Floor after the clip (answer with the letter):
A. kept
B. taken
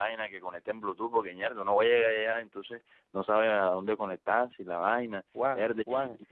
B